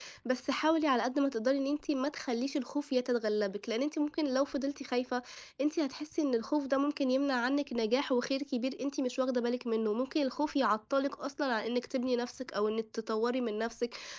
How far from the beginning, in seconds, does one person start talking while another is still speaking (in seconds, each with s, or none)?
none